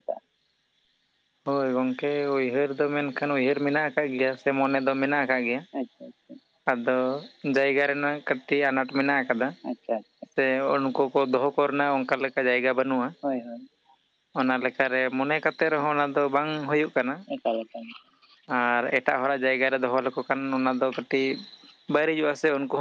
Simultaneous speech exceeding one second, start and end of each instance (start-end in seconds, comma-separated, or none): none